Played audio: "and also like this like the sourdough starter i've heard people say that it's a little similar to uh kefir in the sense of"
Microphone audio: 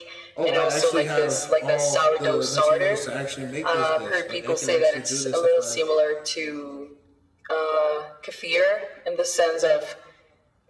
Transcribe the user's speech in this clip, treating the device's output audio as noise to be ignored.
oh I actually have all the materials to actually make this dish like I can actually do this if I

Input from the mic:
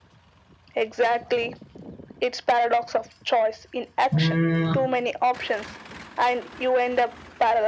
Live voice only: Mm,

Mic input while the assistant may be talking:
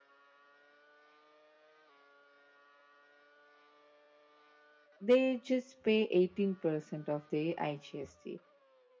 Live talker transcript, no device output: they just pay 18% of the igst

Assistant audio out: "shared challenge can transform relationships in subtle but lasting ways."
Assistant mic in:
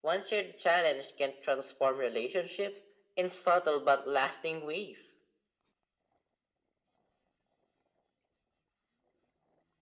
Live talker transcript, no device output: none

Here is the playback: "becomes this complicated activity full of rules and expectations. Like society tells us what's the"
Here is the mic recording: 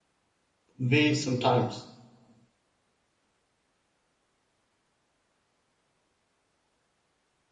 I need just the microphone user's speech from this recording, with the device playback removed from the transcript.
way sometimes.

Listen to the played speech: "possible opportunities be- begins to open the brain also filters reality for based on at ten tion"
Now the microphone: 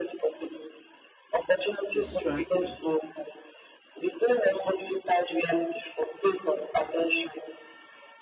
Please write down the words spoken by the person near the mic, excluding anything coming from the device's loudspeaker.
distracted

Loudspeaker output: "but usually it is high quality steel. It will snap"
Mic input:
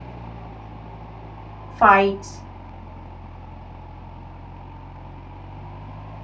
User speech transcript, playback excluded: fights,

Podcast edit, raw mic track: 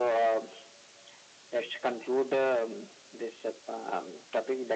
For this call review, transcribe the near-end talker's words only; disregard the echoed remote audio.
none

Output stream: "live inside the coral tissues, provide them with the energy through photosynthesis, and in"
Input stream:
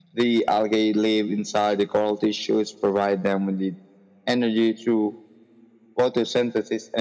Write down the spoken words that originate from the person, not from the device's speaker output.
none

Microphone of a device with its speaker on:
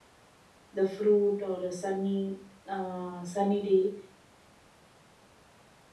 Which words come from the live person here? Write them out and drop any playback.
the fruit or a sunny uh, sunny day

